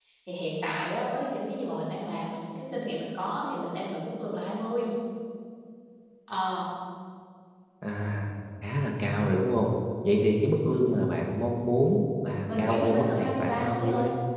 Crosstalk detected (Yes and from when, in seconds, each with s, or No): Yes, from 12.5 s